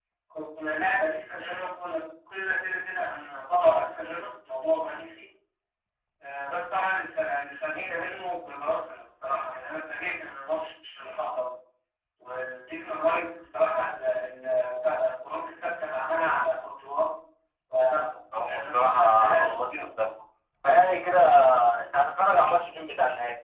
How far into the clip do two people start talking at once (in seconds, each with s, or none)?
18.4 s